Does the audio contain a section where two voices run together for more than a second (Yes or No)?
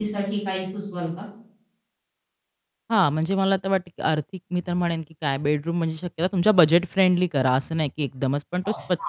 No